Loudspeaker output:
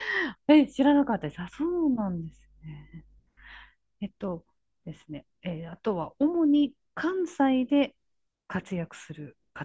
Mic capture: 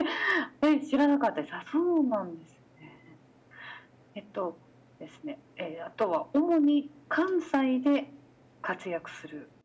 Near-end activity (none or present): none